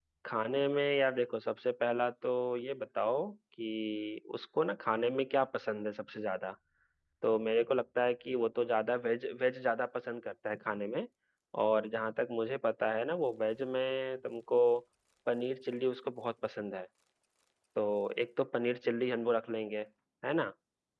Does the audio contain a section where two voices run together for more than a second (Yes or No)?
No